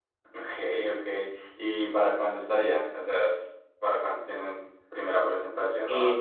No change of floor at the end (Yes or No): No